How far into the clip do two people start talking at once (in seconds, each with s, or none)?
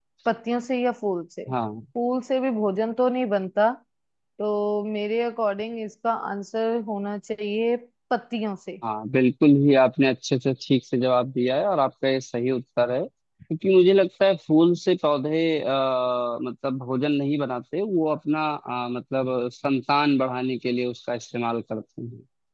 none